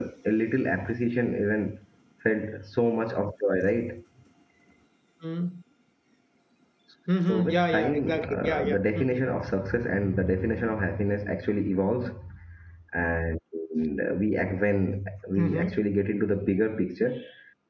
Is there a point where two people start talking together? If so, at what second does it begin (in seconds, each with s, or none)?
7.3 s